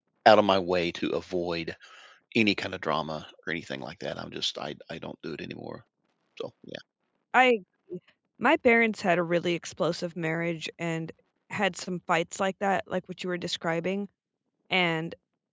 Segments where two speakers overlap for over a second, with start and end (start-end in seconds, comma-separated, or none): none